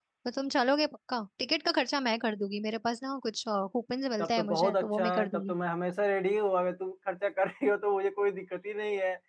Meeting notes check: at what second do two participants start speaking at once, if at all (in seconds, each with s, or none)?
4.2 s